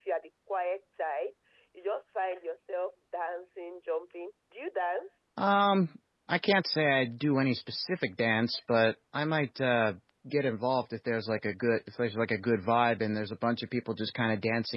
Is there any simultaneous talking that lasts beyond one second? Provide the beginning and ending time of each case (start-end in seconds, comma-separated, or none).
none